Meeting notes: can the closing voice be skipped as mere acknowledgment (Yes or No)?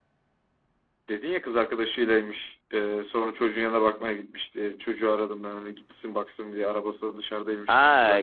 No